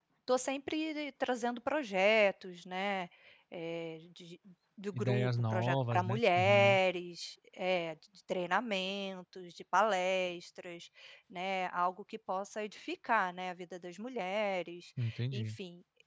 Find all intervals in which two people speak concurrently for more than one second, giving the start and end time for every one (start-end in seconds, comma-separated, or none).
4.9-6.8